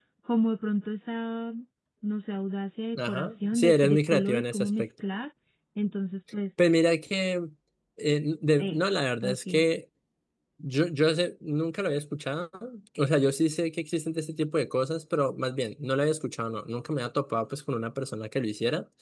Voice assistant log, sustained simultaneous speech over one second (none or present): present